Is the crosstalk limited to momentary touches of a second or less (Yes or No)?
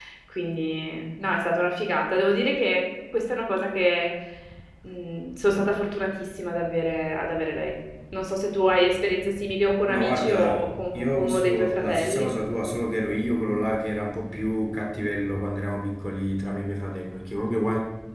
No